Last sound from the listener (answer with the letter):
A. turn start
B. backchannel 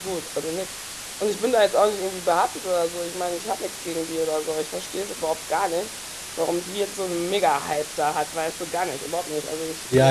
A